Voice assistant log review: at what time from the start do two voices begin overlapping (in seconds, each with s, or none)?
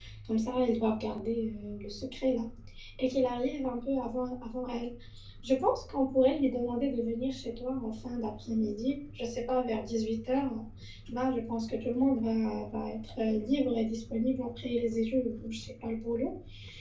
none